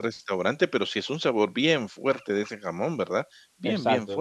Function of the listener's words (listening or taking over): taking over